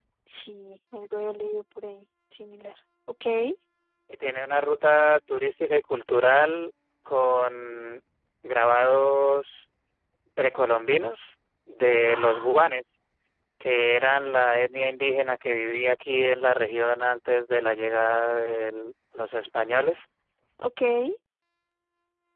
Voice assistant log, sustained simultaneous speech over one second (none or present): none